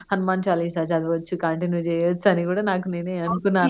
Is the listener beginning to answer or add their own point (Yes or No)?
Yes